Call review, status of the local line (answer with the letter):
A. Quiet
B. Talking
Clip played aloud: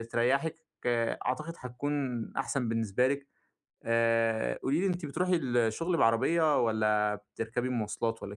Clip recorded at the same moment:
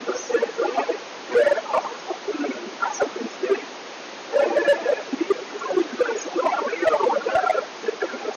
A